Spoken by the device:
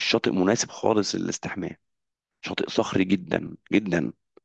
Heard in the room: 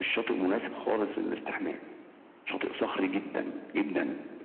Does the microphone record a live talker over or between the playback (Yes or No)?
No